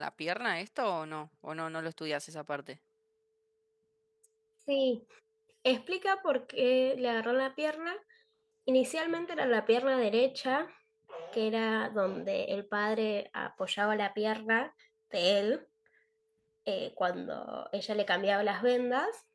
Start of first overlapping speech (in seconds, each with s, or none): none